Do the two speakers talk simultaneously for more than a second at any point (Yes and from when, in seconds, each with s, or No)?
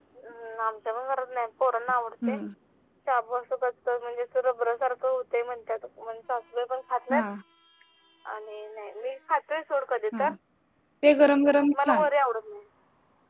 No